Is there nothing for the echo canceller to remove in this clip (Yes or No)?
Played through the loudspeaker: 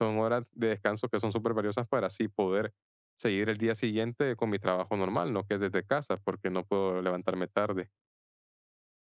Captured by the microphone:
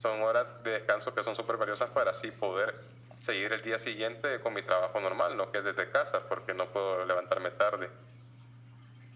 No